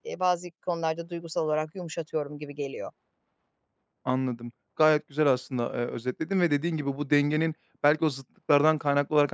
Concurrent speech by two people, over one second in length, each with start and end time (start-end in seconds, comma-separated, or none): none